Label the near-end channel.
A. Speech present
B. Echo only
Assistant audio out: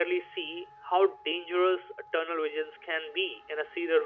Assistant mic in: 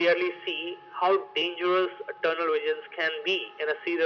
B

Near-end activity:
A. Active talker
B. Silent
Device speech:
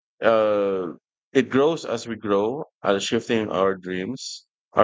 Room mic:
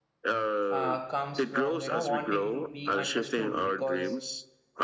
A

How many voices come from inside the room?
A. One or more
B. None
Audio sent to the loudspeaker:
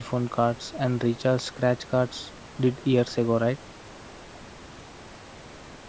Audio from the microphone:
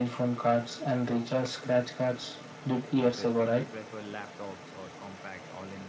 A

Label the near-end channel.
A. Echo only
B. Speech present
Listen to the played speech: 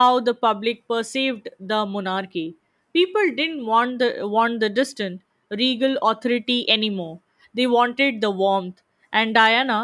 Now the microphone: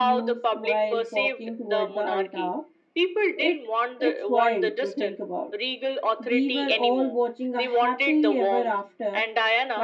B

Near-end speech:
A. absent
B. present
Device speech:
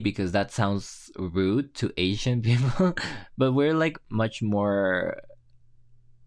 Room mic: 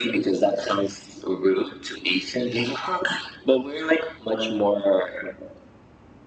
A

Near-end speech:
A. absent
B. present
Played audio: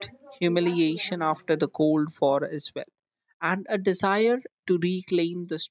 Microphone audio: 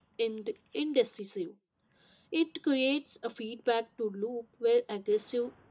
B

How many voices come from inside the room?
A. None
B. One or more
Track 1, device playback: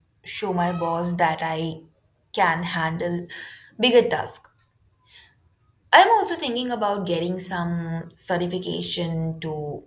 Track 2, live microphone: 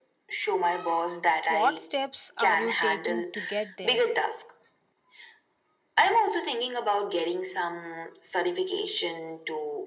B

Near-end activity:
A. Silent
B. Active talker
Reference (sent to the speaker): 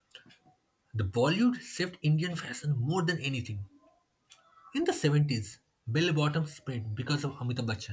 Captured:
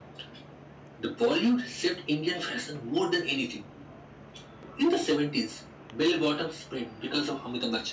A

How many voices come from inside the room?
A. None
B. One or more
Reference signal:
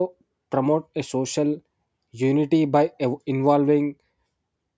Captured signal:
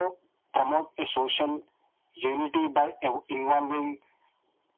A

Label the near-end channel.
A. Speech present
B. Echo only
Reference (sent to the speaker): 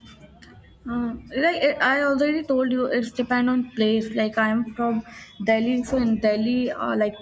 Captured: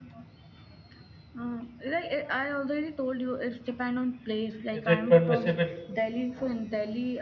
A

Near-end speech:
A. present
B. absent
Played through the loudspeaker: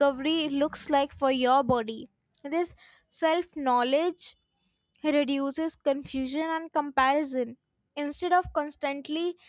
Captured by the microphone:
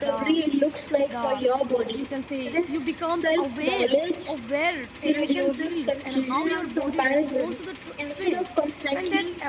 A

